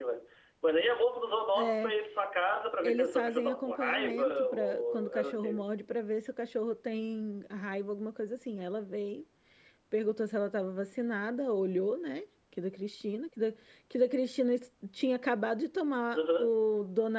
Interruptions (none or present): present